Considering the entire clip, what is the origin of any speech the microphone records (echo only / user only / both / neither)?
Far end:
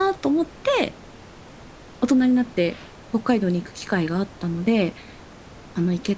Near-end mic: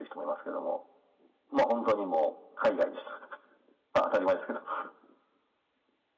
user only